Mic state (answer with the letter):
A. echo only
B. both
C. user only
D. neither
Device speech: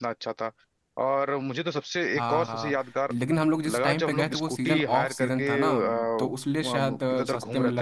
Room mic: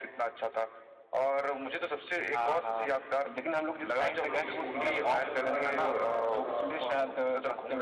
B